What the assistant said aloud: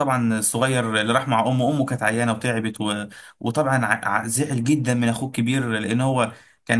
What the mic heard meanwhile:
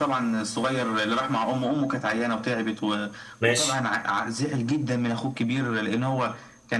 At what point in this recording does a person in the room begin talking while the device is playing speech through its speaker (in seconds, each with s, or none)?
3.4 s